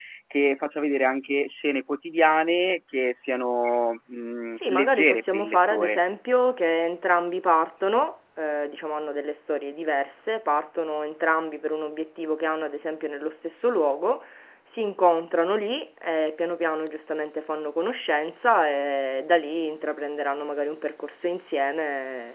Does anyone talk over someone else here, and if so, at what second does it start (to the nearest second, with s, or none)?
5 s